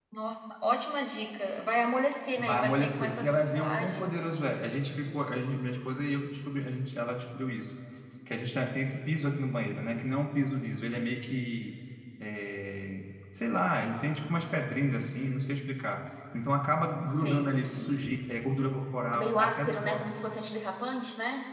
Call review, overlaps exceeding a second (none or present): present